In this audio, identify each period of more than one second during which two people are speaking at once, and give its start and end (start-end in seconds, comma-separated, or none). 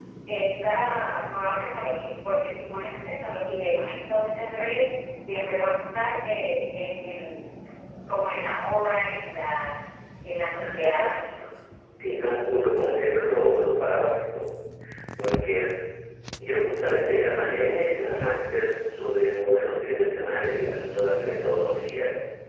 none